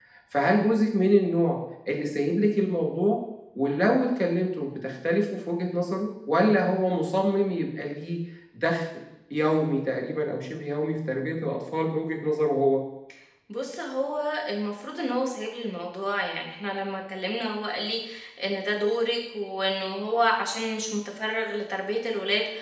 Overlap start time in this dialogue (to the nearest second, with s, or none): none